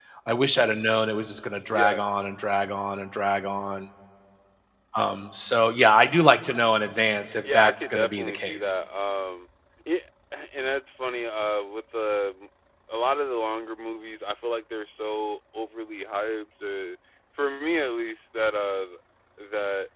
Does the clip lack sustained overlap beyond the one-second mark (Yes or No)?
No